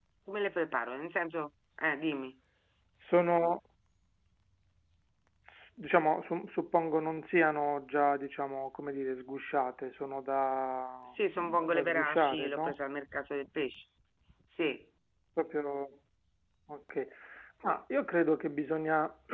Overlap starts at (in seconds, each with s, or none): 11.4 s